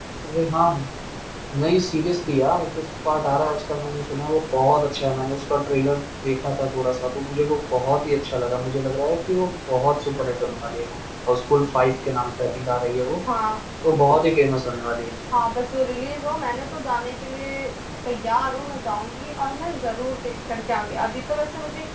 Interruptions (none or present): none